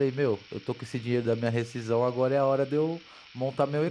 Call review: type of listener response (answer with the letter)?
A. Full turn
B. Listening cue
B